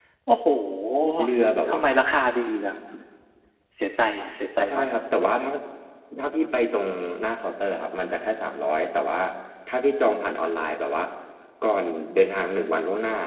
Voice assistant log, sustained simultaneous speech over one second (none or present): none